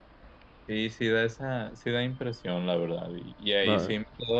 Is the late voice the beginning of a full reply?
No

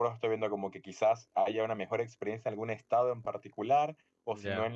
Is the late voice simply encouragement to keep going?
Yes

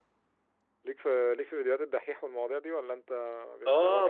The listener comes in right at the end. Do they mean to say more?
Yes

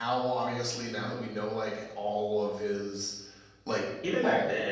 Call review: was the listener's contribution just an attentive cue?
No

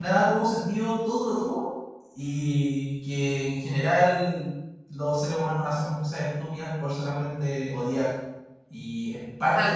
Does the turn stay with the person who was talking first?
Yes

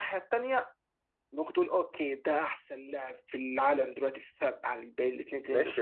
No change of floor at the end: No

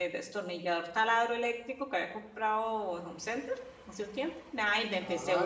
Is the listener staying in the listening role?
No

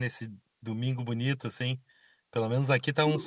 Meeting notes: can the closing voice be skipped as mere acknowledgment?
No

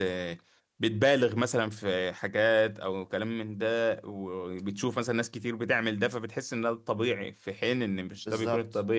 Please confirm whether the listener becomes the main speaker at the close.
Yes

